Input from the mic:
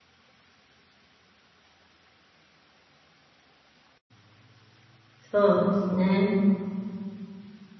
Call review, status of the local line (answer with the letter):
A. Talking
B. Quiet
A